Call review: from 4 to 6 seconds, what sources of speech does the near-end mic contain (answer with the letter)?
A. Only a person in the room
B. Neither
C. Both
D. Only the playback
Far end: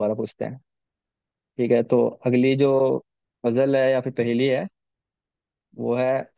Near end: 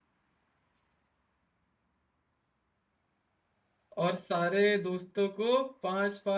A